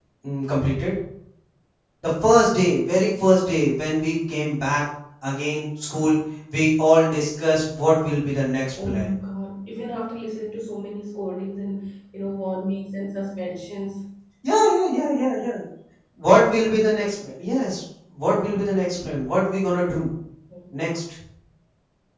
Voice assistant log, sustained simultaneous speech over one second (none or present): none